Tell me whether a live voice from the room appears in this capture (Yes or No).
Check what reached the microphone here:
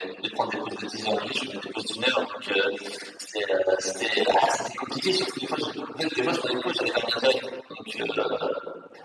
No